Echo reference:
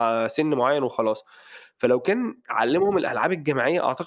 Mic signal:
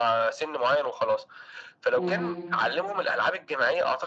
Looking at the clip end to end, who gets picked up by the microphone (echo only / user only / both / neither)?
both